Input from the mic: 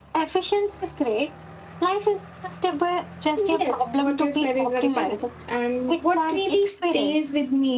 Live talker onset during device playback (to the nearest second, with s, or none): 3 s